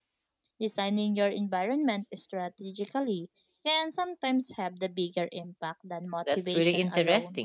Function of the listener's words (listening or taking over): taking over